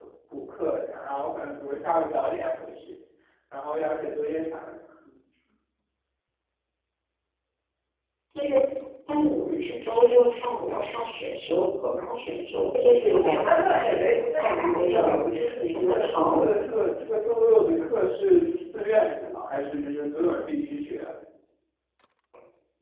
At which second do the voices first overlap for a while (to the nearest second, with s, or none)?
13 s